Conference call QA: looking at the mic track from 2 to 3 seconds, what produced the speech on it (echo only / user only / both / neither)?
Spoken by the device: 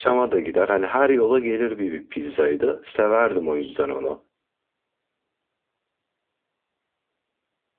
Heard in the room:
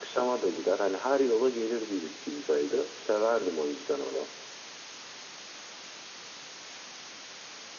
echo only